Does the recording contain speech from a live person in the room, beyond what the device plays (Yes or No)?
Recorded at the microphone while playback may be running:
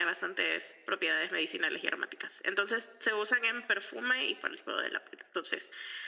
No